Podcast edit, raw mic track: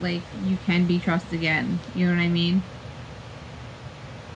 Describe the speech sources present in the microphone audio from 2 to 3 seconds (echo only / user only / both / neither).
echo only